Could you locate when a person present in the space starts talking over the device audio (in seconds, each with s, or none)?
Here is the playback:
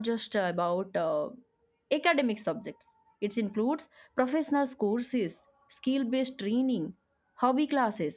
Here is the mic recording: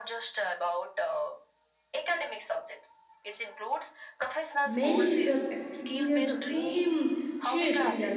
4.6 s